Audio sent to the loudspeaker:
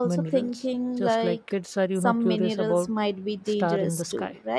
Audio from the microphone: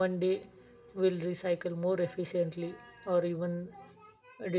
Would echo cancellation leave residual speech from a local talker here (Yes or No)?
Yes